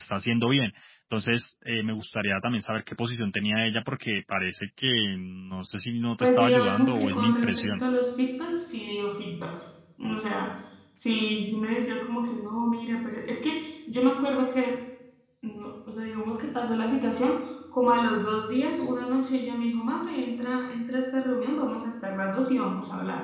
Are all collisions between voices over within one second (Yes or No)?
No